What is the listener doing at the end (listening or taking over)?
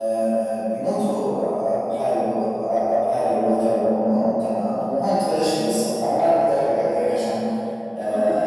listening